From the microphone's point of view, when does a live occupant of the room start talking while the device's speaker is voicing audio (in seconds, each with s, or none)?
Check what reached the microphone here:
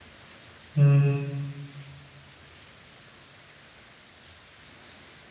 0.7 s